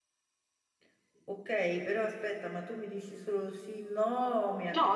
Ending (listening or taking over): taking over